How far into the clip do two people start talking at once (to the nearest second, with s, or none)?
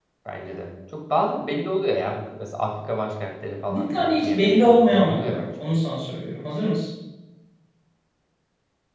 4 s